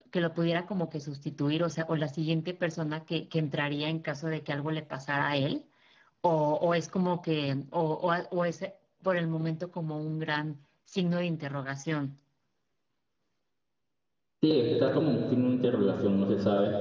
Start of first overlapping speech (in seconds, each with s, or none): none